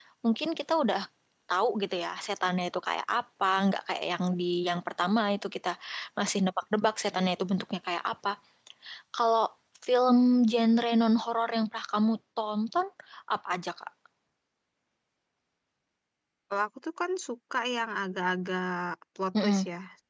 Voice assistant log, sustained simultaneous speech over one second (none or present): none